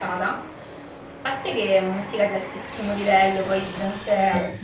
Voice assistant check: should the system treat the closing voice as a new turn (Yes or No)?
No